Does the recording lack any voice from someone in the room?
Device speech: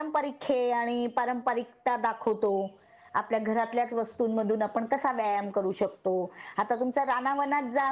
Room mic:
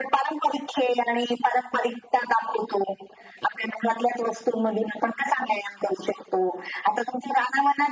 Yes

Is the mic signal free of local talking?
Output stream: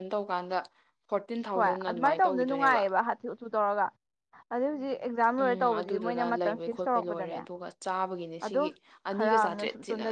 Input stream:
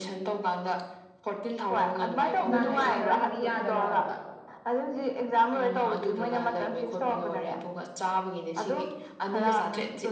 No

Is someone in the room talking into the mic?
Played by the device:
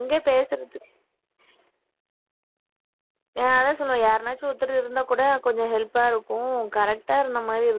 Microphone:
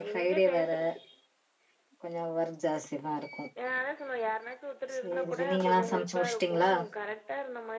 Yes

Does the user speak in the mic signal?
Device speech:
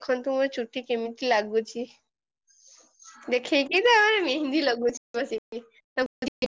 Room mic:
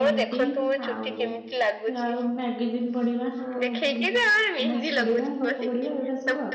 Yes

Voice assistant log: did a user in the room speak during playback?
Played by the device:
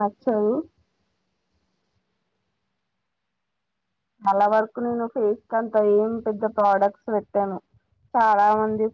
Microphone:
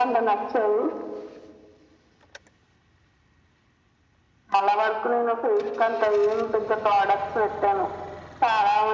No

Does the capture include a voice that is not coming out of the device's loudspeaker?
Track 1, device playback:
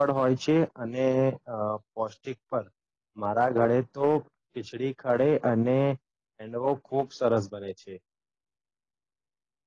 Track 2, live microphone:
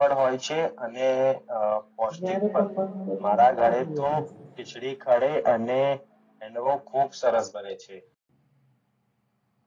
Yes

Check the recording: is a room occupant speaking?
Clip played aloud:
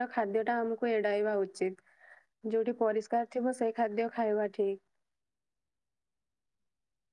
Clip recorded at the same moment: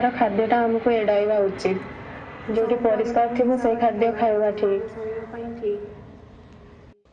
Yes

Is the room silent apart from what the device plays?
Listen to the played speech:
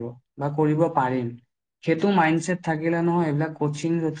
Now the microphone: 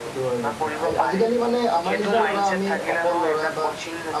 No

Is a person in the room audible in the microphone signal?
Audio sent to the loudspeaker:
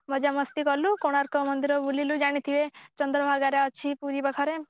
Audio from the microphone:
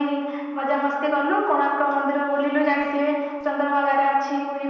No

